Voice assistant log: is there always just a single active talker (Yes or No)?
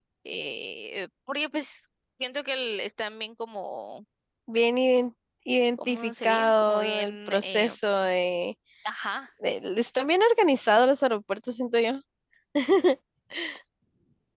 No